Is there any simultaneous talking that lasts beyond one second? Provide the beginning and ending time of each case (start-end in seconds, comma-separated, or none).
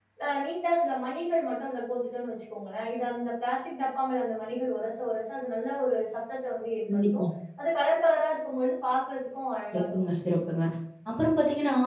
none